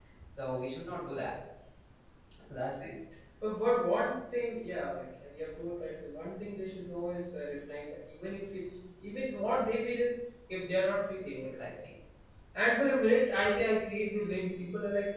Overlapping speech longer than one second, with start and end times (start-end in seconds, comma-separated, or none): none